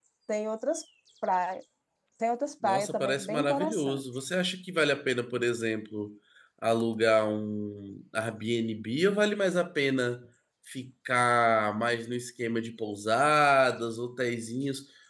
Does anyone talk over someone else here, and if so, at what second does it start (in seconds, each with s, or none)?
2.6 s